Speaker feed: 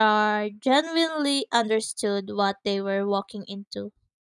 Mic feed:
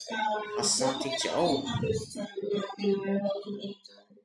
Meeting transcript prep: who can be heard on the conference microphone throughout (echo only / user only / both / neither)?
both